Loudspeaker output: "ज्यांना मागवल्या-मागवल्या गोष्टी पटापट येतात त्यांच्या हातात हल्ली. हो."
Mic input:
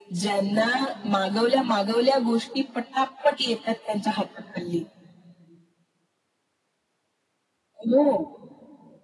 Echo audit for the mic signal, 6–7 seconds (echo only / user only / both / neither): neither